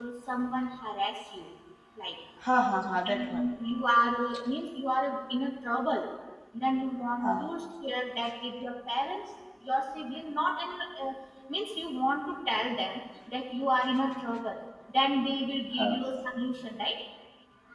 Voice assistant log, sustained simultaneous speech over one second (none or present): none